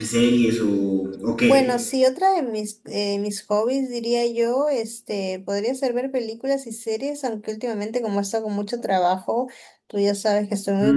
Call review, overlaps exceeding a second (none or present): none